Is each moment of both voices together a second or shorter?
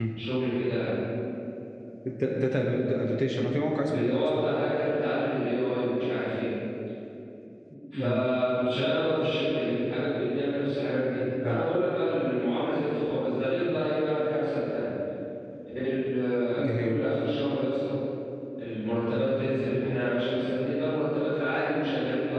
Yes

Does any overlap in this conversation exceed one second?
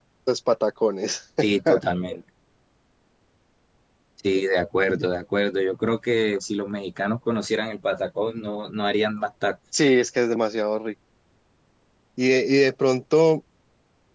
No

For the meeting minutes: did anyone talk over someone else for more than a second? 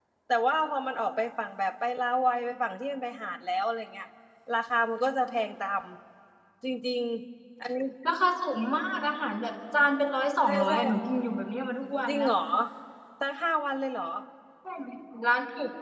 No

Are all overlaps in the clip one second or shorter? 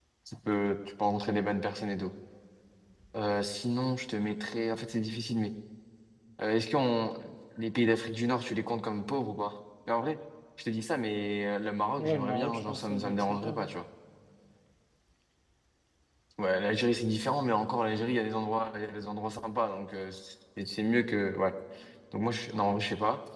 No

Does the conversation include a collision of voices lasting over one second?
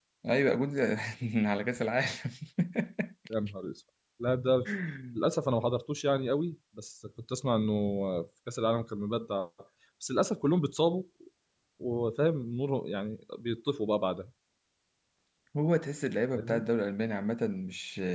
No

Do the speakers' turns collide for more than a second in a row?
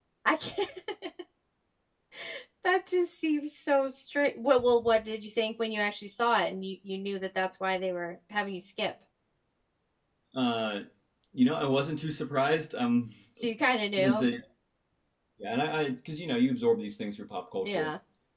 No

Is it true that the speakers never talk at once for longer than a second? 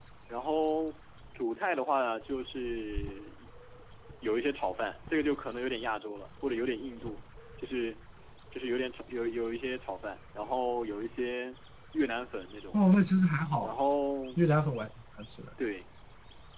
Yes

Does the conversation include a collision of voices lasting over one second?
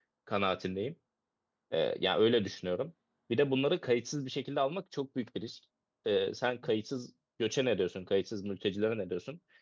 No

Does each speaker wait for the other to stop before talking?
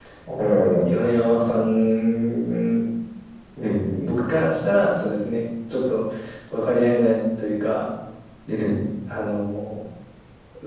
Yes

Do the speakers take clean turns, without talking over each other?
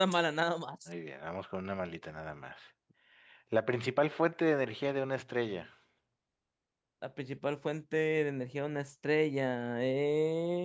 Yes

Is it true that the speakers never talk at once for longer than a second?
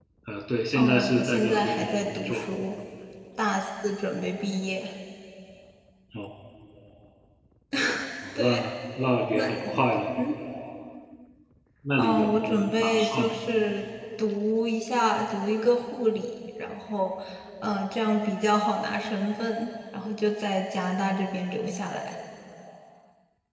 No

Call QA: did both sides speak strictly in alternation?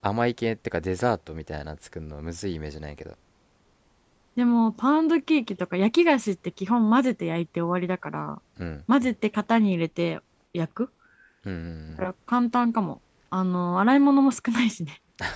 Yes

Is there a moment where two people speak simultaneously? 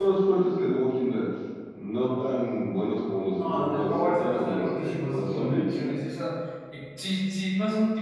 Yes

